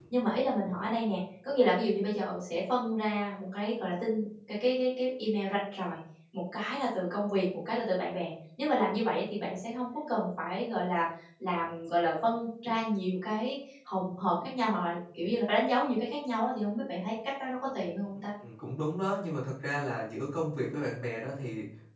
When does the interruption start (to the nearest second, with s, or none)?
none